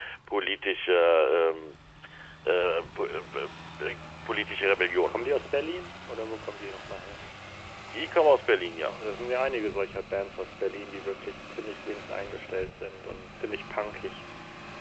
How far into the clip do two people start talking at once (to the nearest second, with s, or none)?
none